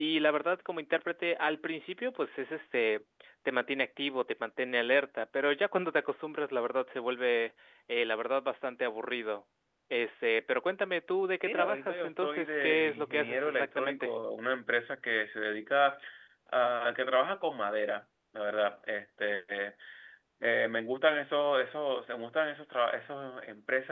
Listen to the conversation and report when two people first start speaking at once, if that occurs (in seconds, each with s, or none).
11.4 s